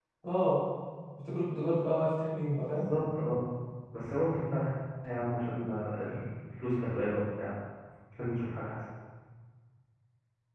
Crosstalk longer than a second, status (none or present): none